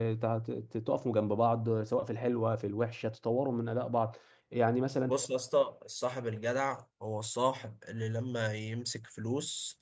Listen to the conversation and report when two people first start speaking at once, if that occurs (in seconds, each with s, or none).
none